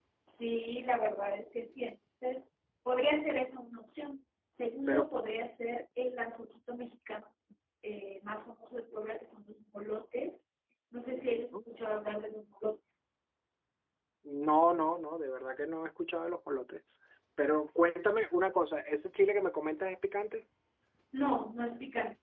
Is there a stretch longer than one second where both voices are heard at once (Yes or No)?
No